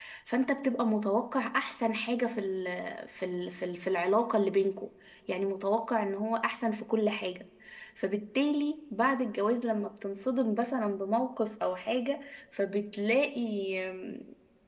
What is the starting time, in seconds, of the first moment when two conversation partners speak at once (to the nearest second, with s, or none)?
none